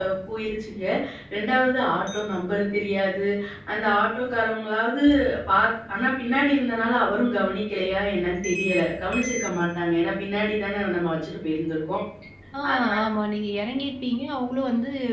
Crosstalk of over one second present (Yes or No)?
No